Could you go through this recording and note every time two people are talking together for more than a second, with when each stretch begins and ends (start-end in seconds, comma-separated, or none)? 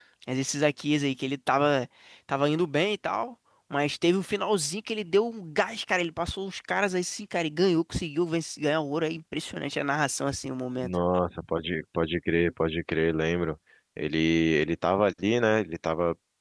none